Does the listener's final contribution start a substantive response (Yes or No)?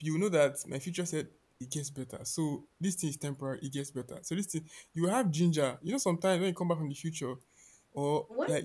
No